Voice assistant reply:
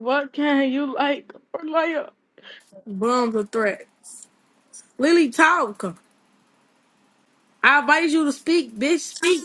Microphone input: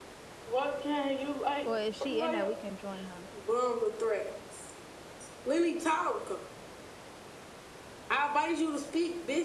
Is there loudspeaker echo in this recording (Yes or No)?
Yes